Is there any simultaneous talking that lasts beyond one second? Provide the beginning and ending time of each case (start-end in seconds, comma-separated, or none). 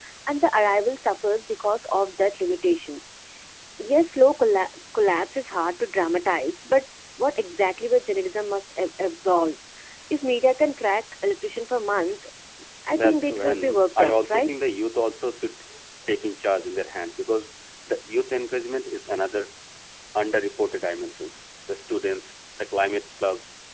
13.0-14.5